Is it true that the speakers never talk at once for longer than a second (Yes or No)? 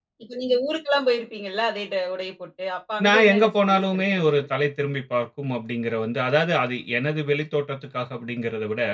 No